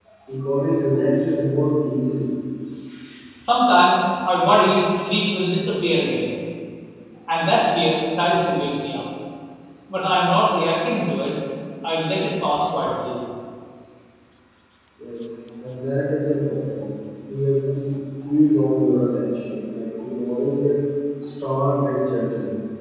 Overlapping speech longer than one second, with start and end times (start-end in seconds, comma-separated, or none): none